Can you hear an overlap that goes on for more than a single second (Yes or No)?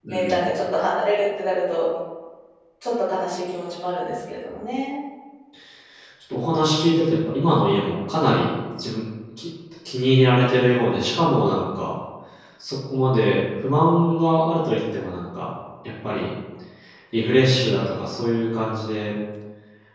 No